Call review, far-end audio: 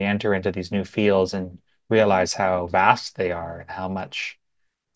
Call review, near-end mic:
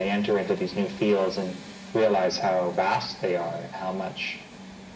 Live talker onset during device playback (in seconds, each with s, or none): none